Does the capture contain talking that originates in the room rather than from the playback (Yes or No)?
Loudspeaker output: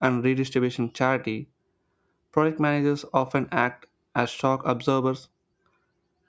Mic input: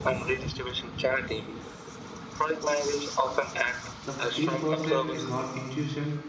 Yes